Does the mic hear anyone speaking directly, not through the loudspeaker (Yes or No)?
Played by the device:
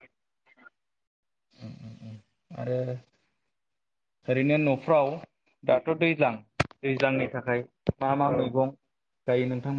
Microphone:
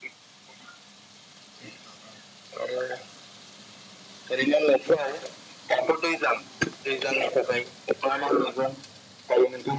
No